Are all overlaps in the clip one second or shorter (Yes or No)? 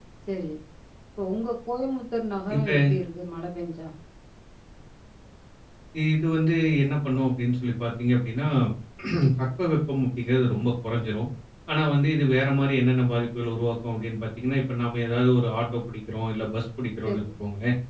Yes